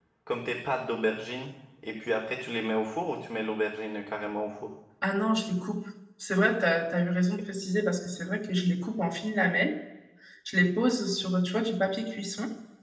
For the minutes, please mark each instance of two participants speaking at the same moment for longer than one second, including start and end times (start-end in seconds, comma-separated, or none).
none